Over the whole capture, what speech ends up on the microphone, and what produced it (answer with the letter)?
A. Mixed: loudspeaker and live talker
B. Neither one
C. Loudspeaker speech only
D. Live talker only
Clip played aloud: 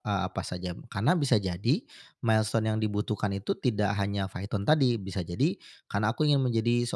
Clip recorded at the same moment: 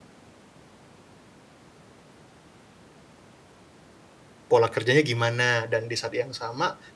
D